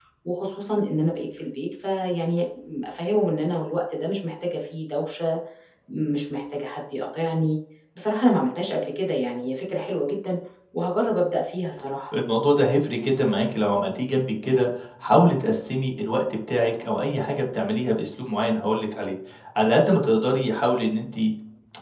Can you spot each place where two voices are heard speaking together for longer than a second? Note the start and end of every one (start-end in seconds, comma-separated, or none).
none